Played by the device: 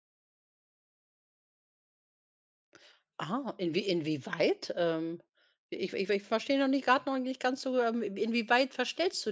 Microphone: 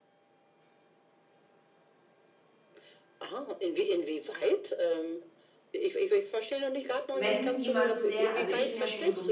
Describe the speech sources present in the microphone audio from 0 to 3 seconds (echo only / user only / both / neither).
neither